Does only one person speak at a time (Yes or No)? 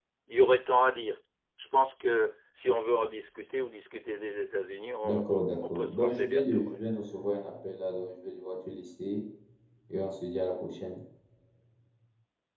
No